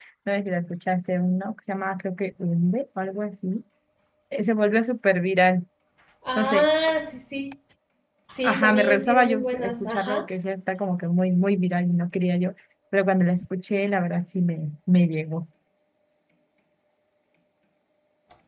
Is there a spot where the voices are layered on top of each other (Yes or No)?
Yes